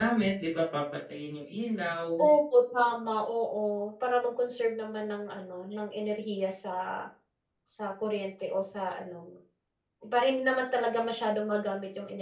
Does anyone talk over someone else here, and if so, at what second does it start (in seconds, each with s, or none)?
none